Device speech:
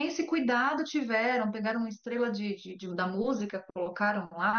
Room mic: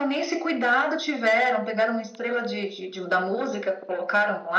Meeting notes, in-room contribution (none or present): none